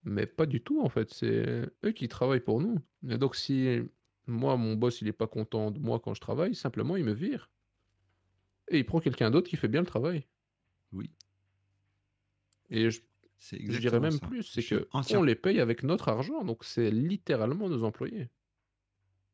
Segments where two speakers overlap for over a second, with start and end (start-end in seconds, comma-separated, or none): 13.7-15.2